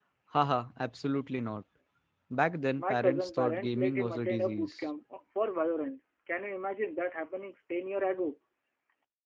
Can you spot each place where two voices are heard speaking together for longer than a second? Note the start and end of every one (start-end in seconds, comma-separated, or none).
2.8-4.7